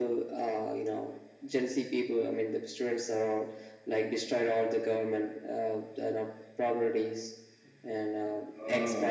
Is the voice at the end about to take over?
Yes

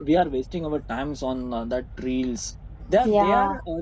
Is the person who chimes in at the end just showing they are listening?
Yes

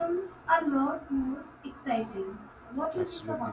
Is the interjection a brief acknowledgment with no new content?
No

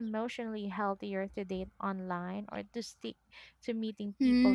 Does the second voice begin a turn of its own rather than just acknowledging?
Yes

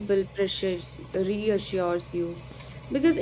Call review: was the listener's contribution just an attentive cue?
Yes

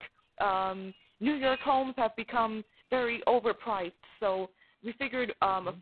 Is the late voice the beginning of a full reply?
No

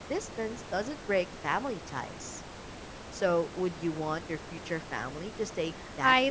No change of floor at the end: No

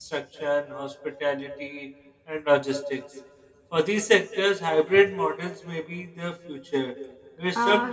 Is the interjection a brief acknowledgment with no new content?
No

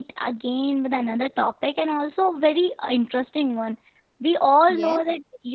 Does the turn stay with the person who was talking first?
Yes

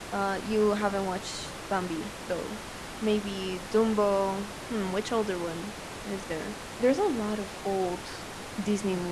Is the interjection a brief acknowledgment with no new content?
No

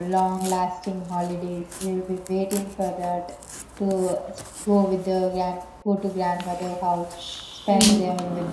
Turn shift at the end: No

